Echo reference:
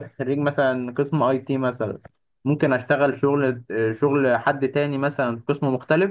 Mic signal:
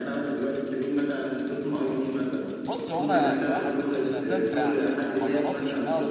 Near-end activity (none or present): present